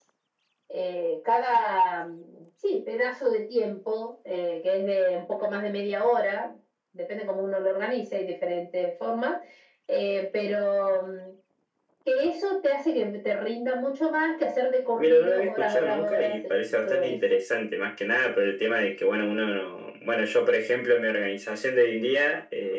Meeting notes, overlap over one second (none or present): present